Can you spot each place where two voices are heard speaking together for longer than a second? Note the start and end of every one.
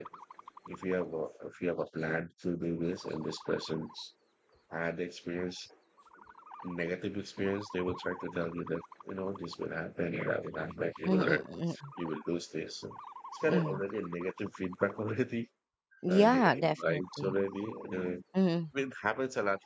16.1-17.4

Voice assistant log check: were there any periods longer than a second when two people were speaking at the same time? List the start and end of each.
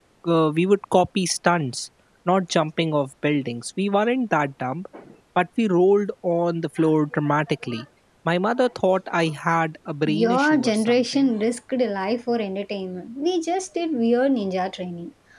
10.1-11.3

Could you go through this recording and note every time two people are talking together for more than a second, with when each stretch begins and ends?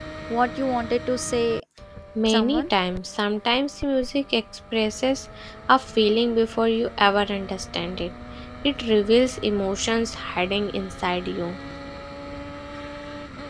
none

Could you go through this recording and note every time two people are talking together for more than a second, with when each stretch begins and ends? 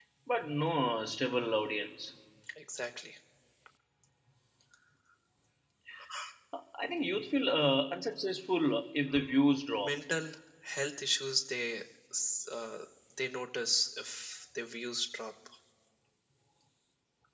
none

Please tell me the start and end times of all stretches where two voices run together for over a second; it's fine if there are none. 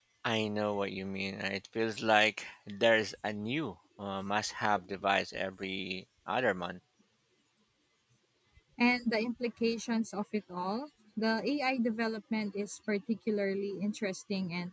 none

